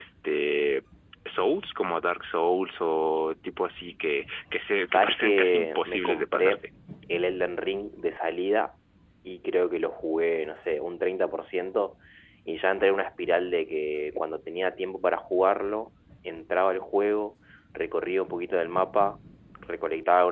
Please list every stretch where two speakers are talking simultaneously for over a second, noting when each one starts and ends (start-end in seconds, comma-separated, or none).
4.9-6.6